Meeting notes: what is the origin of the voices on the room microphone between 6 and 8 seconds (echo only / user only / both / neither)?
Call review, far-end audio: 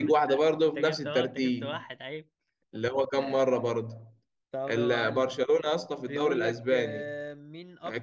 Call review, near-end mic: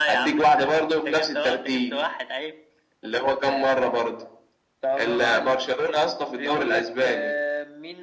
echo only